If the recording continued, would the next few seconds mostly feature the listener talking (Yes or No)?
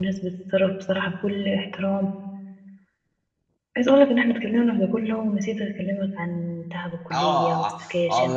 Yes